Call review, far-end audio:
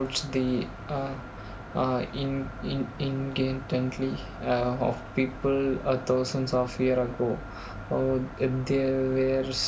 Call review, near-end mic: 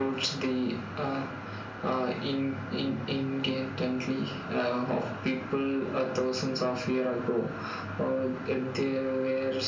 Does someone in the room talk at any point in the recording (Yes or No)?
No